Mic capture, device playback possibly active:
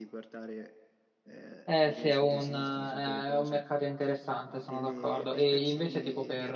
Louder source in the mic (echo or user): user